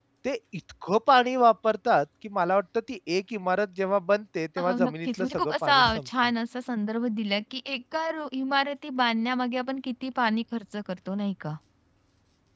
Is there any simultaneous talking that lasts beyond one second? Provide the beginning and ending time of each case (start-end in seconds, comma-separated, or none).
4.7-6.1